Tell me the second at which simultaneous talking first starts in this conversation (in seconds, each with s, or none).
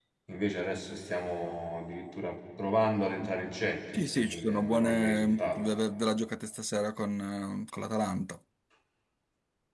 3.9 s